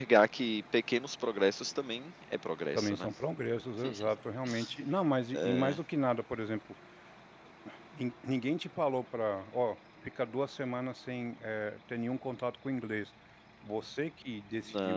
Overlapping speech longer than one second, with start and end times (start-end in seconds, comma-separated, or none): none